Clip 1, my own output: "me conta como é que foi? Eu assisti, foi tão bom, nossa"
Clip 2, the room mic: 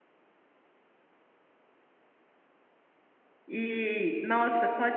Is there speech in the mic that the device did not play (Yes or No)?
Yes